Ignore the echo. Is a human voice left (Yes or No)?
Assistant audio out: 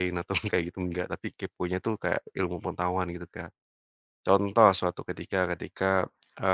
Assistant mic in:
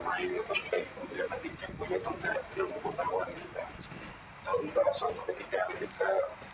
No